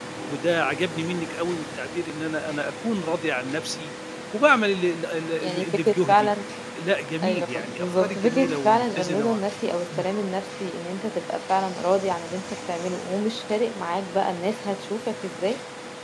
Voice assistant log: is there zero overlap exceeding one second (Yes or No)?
No